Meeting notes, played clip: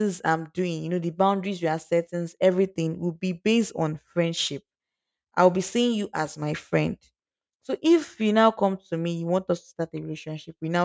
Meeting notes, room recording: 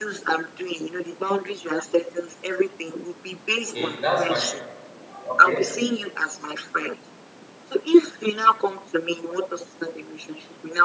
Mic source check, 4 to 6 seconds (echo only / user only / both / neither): both